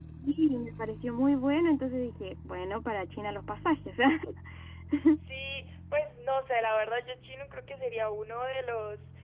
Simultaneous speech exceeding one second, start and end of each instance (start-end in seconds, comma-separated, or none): none